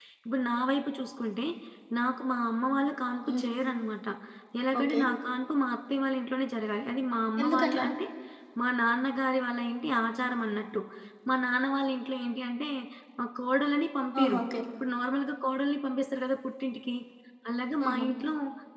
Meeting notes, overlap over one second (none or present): none